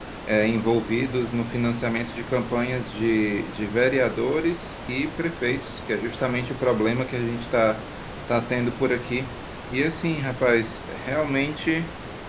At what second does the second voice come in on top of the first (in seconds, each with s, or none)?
none